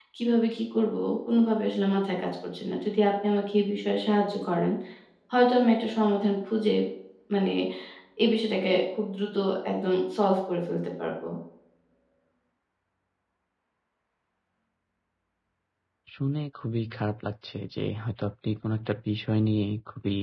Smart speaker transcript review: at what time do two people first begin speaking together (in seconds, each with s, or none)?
none